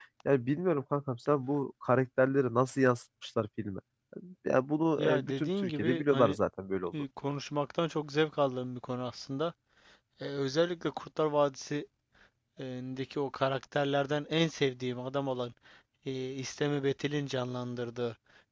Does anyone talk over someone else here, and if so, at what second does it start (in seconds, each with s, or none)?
5.0 s